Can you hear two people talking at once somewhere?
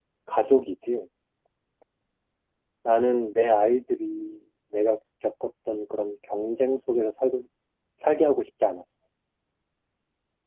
No

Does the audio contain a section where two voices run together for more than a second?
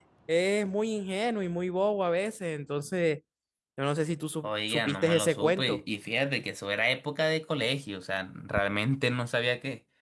Yes, from 4.4 s

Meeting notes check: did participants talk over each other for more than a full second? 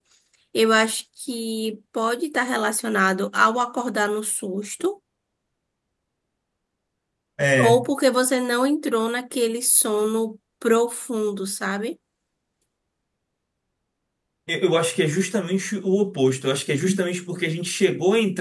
No

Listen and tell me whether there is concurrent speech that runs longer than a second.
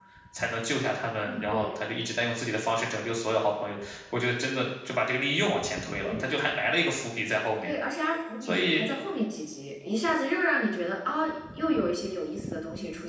No

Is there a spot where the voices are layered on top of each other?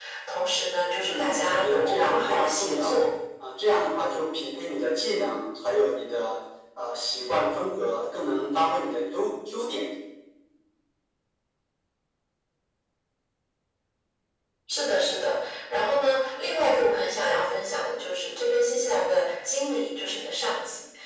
Yes, from 1.0 s

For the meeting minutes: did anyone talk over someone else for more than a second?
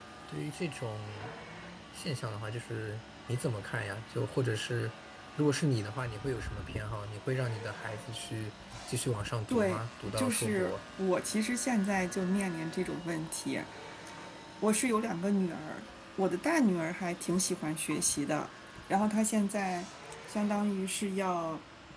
Yes, from 9.5 s

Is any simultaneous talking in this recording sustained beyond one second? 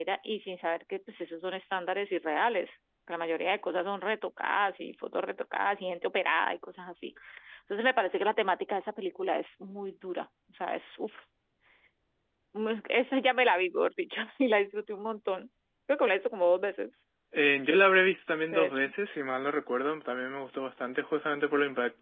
No

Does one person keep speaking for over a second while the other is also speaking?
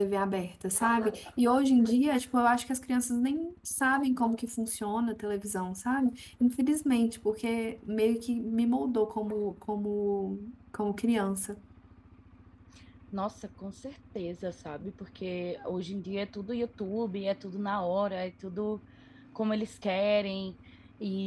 No

